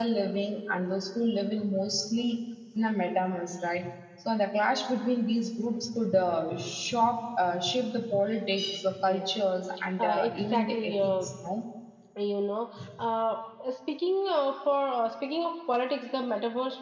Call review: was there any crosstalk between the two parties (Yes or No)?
Yes